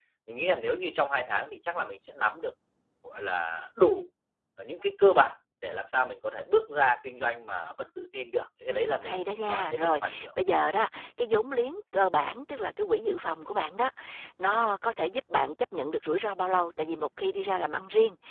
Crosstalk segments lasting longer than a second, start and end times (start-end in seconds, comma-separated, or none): 8.7-10.3